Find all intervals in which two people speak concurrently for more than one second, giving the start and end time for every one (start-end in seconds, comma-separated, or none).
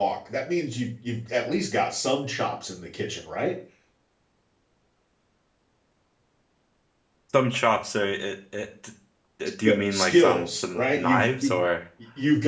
9.6-11.5